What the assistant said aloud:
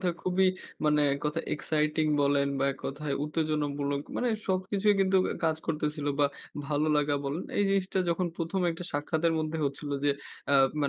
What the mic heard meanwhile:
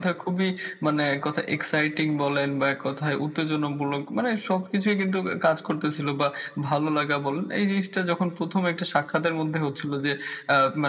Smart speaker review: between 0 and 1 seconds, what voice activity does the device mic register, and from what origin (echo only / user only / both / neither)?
echo only